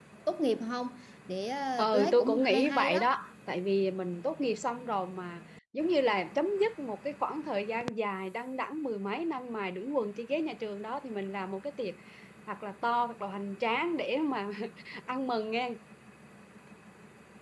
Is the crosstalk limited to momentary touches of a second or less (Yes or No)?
No